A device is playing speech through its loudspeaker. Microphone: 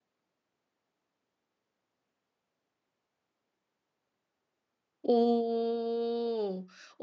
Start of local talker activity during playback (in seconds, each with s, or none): 5.0 s